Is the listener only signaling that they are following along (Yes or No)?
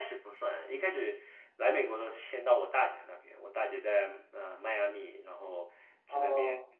Yes